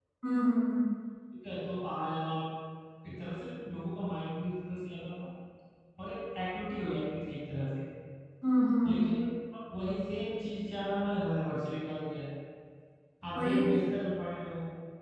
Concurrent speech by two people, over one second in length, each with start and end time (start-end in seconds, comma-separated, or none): none